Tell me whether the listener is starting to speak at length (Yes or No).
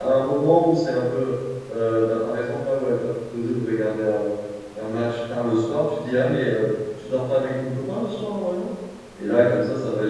No